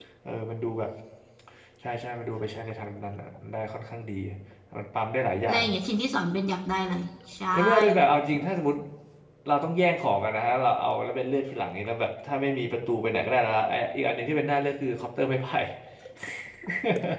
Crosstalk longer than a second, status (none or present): none